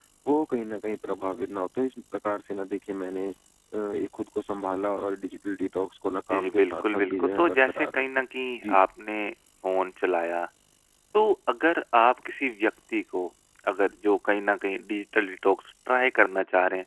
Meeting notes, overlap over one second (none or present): present